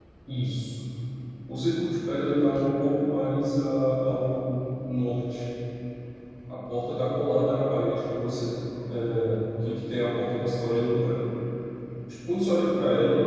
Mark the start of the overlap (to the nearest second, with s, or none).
none